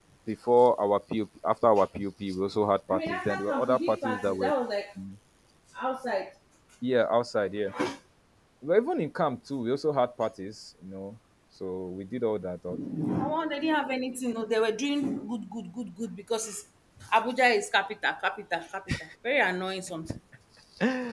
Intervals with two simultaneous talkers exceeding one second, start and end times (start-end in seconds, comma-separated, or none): 2.9-4.5